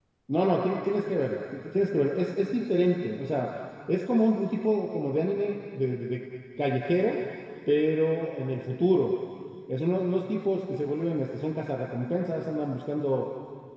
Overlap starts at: none

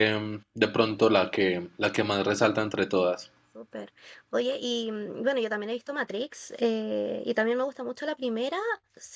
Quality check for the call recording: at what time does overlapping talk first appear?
none

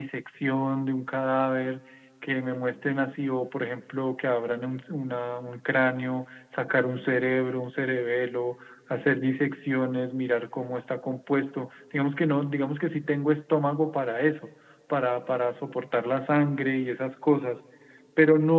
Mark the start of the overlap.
none

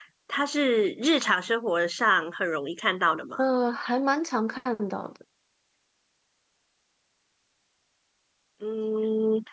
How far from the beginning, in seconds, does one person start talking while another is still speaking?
none

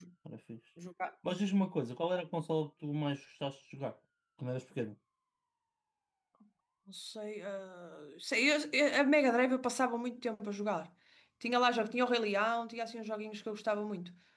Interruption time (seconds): none

